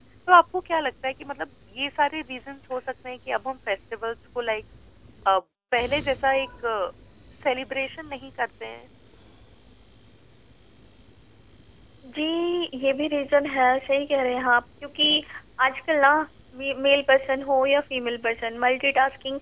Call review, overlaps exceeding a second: none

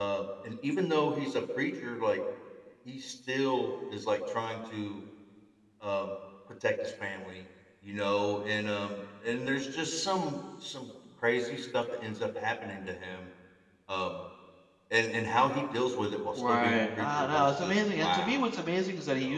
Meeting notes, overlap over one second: present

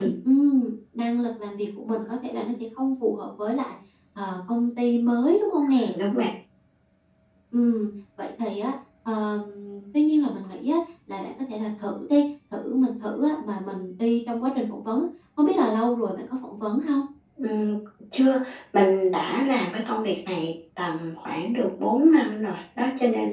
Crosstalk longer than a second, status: none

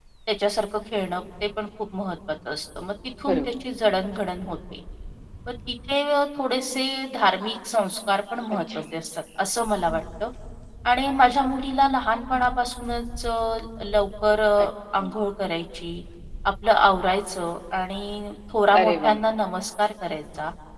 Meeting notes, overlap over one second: none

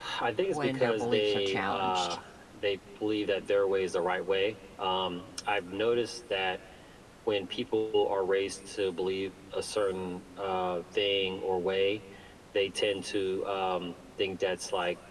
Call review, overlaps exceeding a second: present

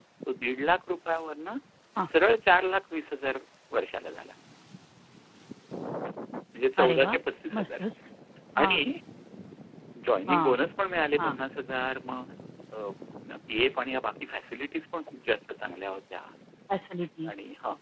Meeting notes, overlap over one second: none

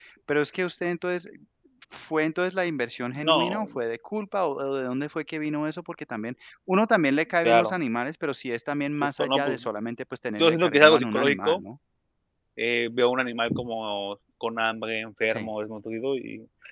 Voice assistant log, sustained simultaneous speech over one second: present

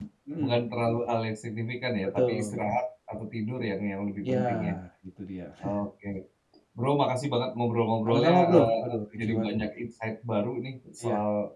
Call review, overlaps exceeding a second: present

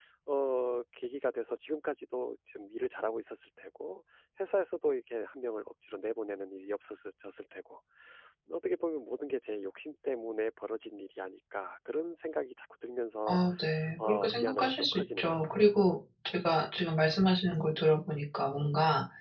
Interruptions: present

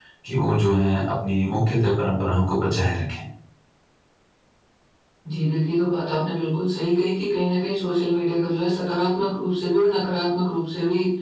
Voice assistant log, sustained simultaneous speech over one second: none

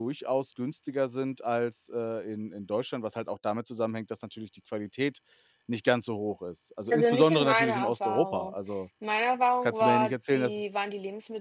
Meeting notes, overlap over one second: present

